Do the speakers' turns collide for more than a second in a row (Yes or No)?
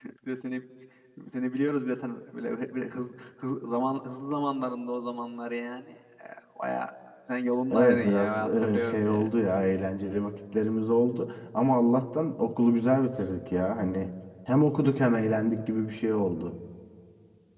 Yes